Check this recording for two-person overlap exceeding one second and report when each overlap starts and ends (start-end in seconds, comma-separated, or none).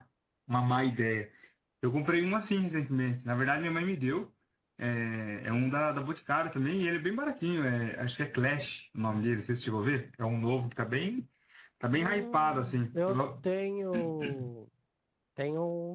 11.9-13.2